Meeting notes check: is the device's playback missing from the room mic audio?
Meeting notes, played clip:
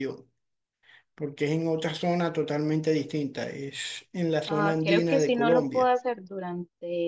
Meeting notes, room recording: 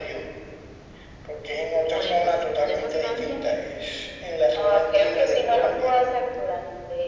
No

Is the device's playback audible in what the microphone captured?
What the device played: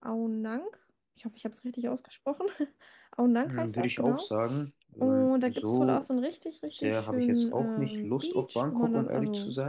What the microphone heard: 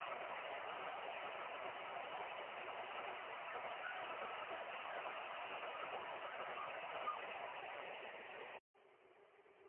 No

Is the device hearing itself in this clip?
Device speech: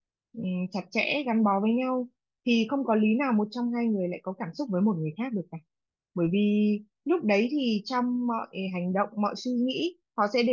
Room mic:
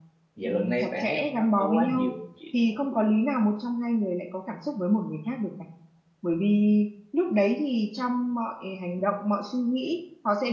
Yes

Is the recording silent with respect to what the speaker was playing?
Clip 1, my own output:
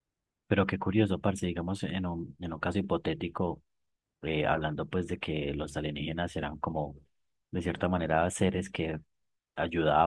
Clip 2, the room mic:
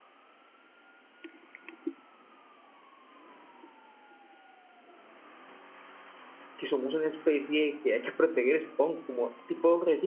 Yes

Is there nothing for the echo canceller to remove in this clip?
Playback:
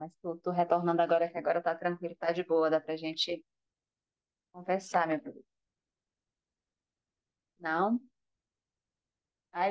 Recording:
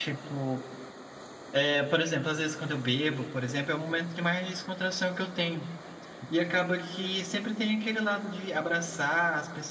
Yes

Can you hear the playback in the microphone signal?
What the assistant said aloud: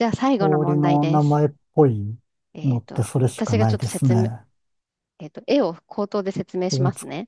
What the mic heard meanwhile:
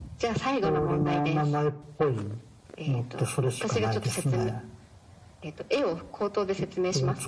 Yes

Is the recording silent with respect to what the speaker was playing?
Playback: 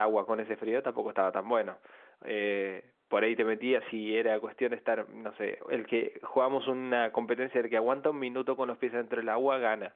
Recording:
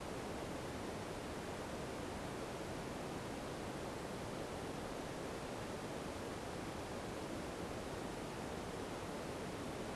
Yes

